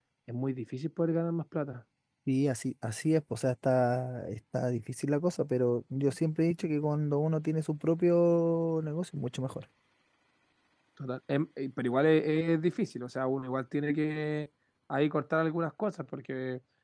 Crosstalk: none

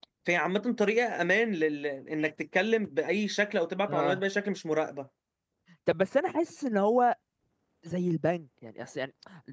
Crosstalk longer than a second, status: none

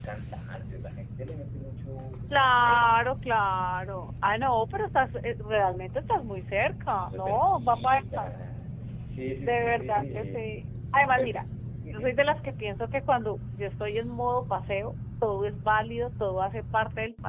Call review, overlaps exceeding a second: present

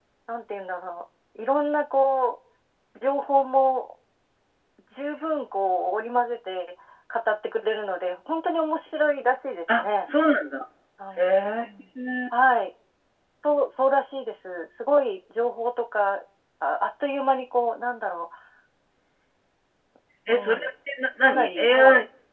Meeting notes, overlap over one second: none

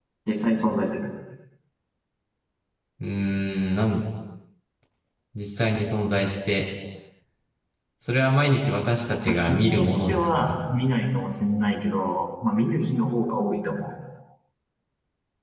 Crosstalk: present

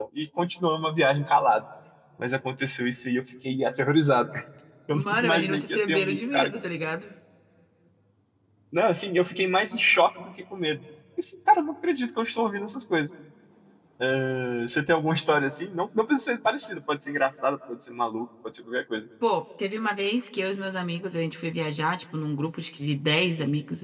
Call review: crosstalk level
present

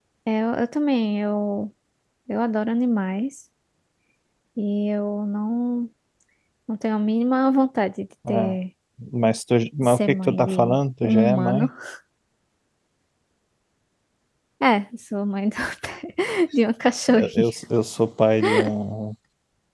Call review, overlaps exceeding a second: present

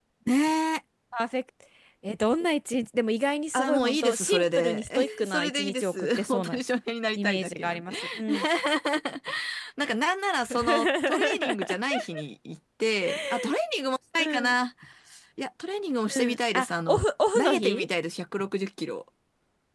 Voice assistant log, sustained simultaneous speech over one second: present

